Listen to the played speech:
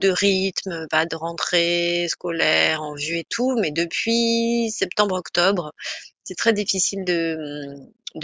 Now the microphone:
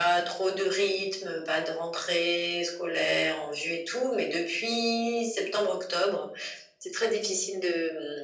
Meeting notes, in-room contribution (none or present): none